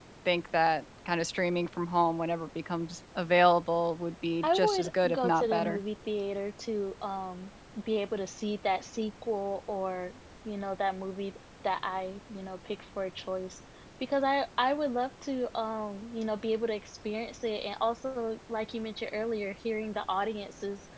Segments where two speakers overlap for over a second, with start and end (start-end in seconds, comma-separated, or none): 4.4-5.8